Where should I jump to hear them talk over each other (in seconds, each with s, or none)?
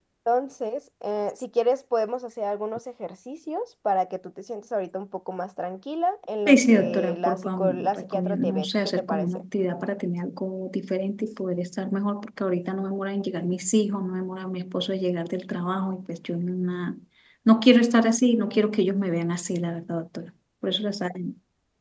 6.5 s